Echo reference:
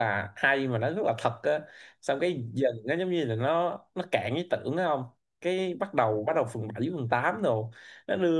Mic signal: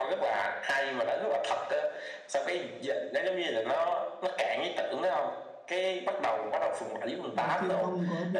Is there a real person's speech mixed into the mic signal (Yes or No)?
Yes